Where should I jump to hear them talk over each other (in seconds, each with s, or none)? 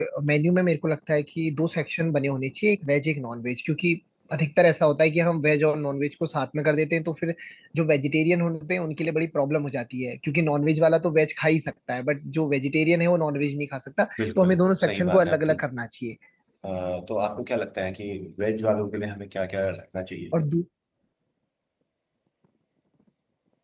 14.2 s